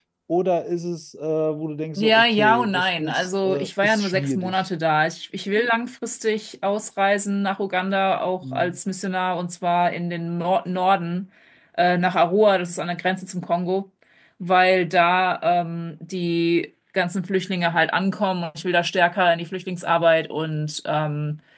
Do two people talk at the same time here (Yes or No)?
Yes